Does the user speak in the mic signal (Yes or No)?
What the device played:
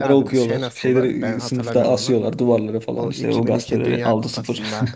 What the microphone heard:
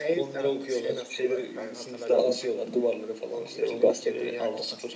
No